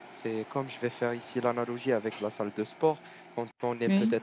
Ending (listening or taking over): listening